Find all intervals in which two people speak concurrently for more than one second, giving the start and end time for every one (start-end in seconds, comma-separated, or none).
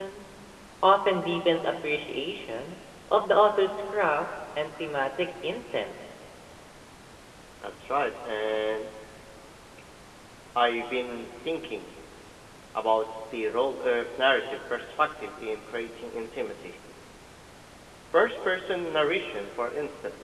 none